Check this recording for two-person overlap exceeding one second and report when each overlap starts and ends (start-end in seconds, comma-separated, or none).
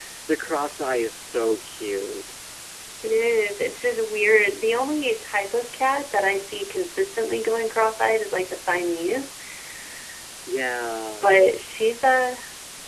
none